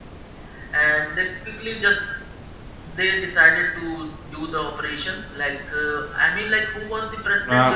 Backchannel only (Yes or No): No